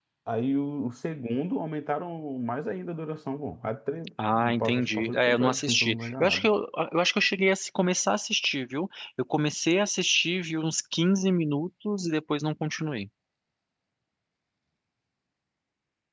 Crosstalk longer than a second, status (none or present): present